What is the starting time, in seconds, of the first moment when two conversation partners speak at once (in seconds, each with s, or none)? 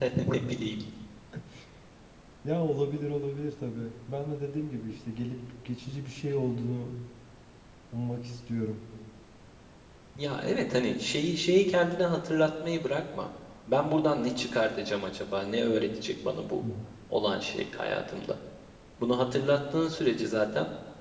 none